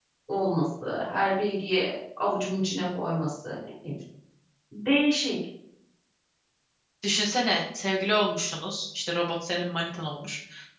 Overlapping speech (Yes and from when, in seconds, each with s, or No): No